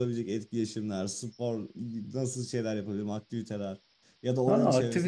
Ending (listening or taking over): taking over